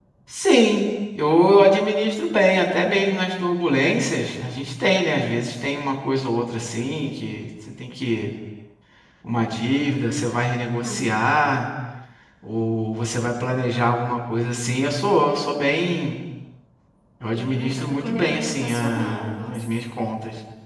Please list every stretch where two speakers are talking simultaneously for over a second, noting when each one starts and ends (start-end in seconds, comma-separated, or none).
17.3-19.8